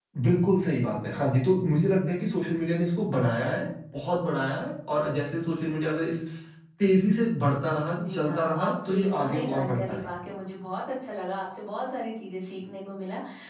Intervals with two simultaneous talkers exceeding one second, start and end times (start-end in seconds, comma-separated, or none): 8.1-10.1